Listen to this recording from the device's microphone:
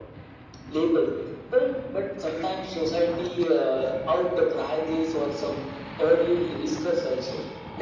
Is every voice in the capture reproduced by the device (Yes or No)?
Yes